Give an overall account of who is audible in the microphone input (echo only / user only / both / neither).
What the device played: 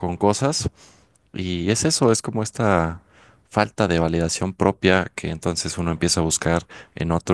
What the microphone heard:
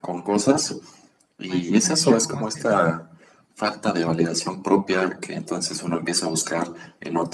both